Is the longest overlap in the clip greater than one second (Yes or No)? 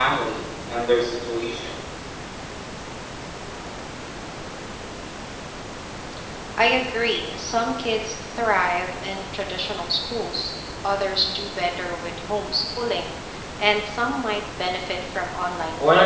No